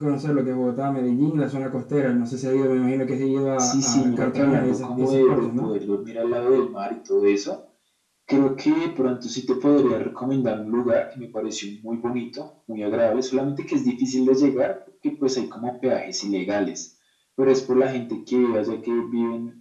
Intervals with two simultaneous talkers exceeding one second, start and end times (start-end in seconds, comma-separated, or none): 3.6-5.7